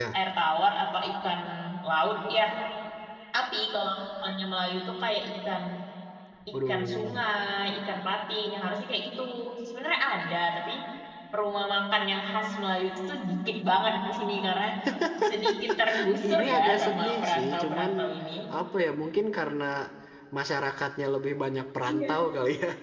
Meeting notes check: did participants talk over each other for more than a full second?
Yes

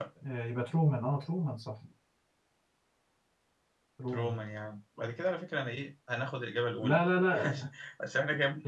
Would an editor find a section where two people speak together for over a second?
No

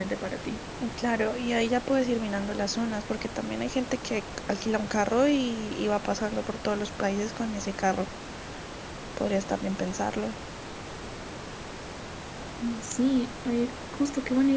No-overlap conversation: Yes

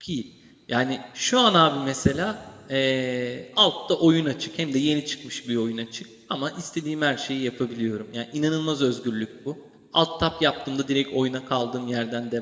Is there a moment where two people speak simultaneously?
No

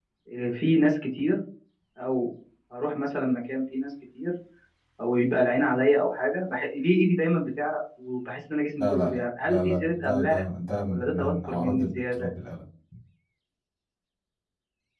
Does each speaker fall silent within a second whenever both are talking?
No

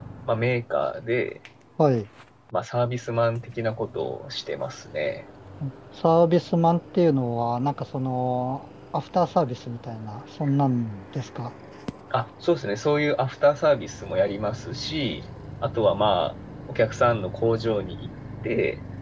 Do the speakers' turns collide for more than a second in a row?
No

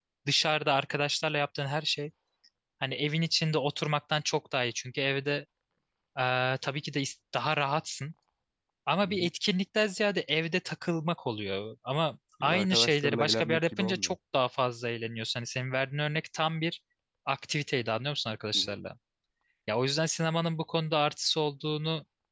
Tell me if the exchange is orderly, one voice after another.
No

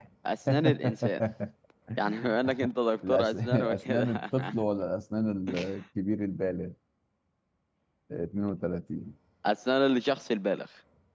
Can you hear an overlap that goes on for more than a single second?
Yes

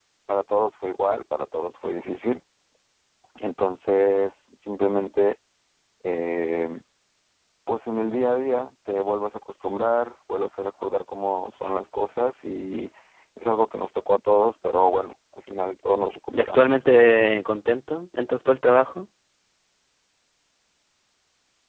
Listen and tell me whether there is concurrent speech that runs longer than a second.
No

